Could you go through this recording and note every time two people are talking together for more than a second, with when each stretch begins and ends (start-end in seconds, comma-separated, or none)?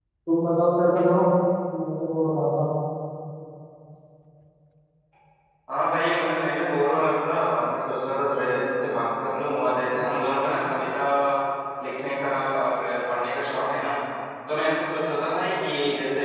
none